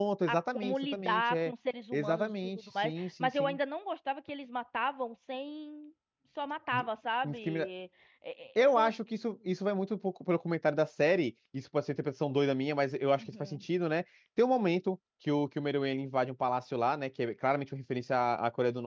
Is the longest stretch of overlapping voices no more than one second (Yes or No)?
No